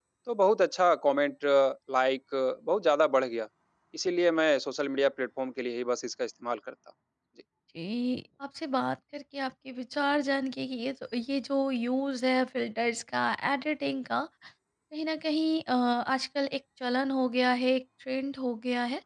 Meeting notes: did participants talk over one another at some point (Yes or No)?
No